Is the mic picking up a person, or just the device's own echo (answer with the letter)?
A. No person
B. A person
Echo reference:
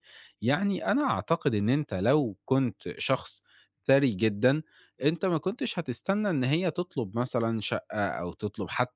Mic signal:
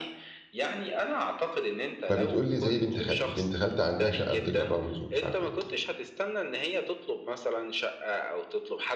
B